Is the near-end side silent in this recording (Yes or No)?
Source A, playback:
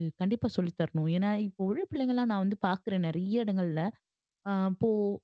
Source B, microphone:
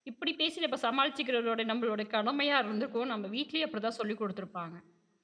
No